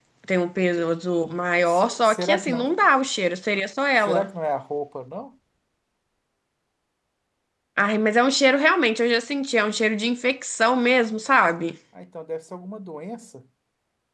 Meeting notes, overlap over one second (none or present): present